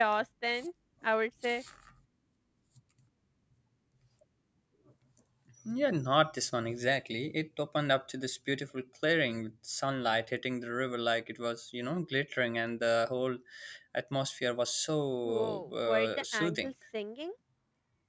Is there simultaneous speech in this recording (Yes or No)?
Yes